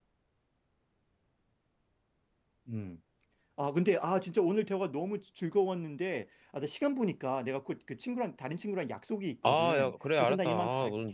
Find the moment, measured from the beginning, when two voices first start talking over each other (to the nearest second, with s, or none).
9 s